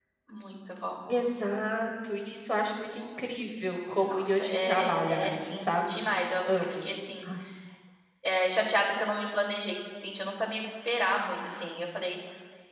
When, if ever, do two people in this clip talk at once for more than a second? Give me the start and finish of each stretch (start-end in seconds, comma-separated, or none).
4.0-6.0